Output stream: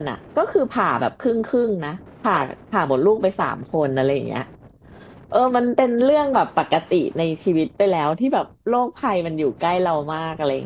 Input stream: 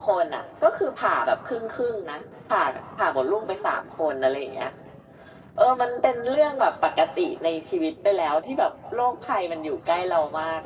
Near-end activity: none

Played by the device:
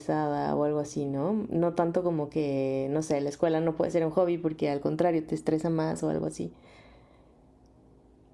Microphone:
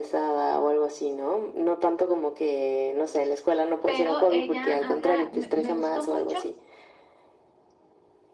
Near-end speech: present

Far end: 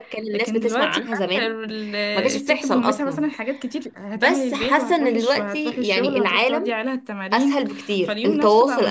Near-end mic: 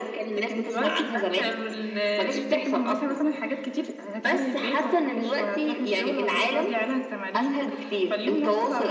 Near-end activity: none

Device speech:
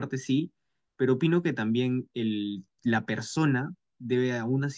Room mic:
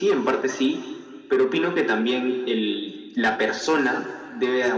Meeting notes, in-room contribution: none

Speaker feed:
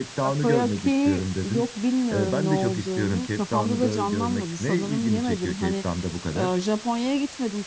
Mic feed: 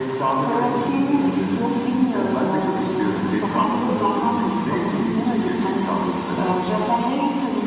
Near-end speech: none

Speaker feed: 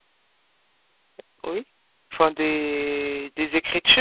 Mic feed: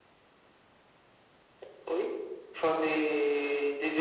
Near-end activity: none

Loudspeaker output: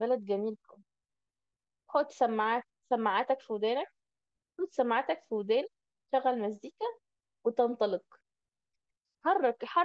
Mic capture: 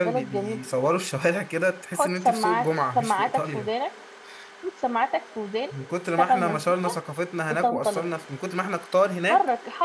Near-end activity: present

